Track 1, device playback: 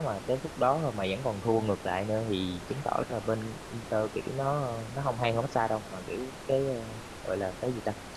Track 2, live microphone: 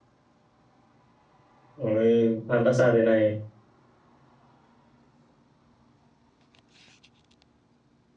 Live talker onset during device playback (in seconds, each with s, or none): 1.7 s